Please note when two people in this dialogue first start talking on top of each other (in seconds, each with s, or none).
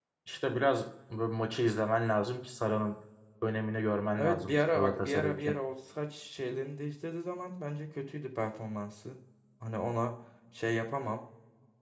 4.2 s